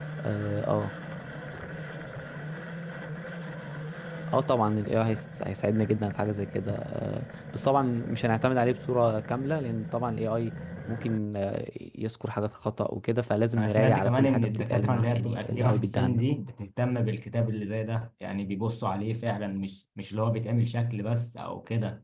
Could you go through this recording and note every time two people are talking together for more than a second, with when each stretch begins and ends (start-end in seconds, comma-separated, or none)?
13.6-16.2